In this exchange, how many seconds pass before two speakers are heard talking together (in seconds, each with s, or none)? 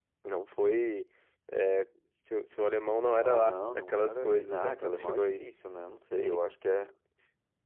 3.2 s